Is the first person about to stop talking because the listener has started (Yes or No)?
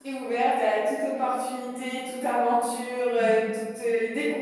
No